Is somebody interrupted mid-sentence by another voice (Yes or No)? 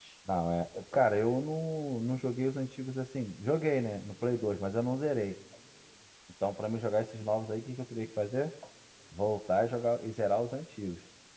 No